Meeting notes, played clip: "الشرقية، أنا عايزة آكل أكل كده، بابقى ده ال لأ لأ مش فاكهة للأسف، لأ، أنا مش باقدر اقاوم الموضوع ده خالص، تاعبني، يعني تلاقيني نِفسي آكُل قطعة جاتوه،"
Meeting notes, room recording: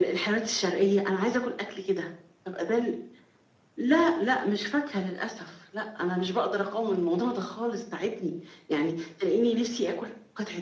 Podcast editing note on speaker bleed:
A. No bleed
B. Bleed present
B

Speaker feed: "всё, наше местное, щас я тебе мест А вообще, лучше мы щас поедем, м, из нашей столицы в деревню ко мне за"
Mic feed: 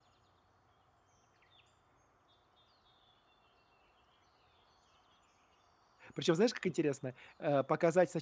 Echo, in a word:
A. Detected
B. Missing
B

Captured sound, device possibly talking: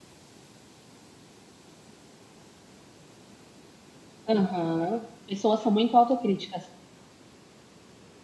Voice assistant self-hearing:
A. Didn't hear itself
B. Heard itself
A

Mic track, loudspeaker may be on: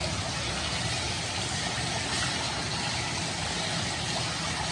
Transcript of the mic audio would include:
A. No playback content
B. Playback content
A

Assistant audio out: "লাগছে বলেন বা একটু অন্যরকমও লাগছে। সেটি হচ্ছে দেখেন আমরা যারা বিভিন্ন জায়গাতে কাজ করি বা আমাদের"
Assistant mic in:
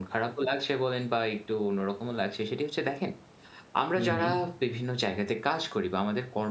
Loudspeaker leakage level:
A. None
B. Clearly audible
B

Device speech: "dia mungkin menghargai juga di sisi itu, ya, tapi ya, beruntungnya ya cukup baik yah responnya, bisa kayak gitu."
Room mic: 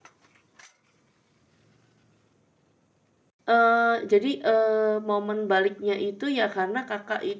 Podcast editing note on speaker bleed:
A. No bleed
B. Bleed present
A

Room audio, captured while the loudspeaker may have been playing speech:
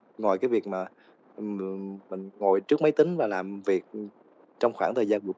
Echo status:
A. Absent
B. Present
A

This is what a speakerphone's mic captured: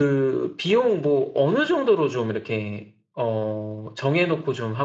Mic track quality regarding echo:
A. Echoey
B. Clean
B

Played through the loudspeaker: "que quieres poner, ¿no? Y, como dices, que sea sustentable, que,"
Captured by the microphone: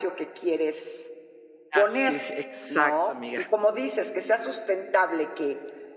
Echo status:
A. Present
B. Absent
A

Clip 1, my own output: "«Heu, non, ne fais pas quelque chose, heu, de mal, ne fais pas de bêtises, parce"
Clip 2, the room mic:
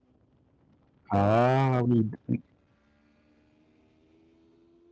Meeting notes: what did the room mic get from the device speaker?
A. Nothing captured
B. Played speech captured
A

